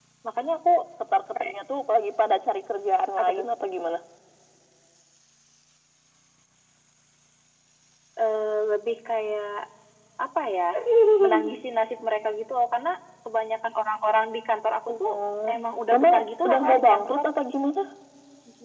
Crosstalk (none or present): present